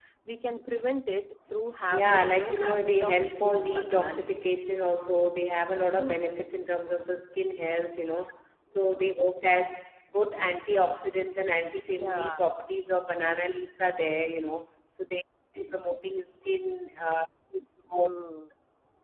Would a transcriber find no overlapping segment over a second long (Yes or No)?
No